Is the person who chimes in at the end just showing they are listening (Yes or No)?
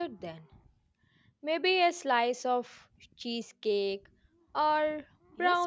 No